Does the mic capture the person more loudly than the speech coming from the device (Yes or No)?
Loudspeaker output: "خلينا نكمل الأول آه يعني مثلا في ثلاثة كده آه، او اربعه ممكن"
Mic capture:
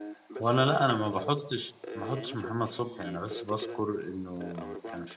Yes